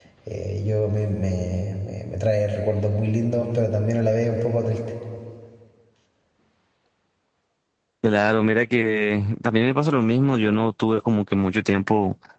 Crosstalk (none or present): none